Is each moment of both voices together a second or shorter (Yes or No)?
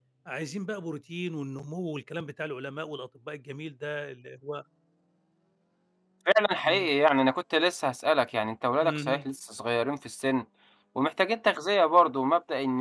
Yes